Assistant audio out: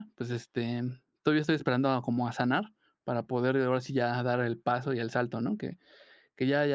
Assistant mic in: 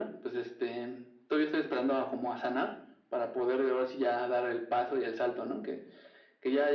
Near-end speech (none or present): none